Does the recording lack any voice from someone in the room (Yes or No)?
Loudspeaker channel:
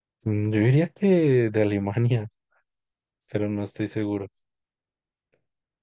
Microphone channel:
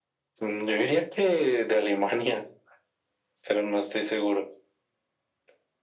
Yes